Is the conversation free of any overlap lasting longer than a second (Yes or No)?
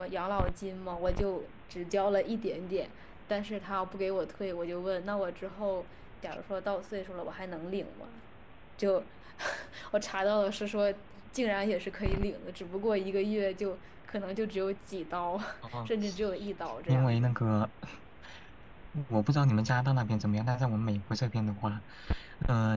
Yes